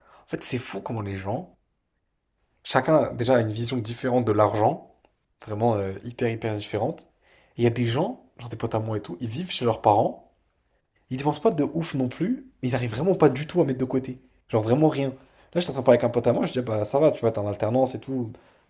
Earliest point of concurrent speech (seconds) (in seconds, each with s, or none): none